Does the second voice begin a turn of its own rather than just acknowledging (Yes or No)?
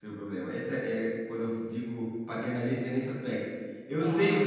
No